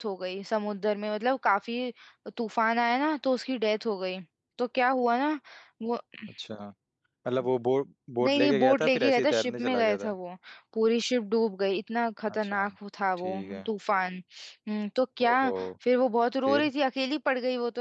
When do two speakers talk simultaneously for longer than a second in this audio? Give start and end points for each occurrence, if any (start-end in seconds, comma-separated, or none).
8.2-10.1